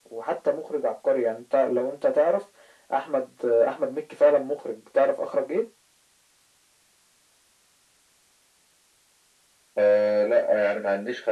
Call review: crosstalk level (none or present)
none